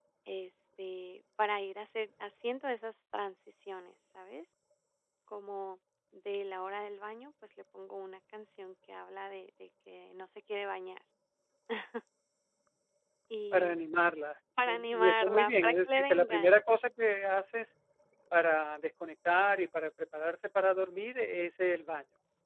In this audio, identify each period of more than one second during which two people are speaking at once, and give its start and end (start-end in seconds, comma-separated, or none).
14.7-16.6